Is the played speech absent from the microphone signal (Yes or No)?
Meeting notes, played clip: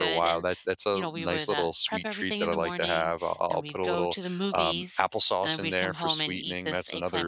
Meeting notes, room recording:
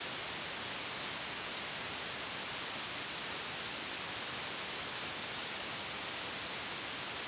Yes